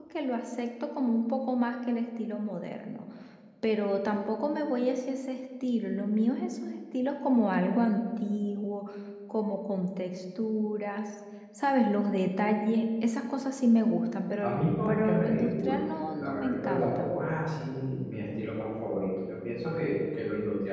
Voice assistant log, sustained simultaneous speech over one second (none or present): present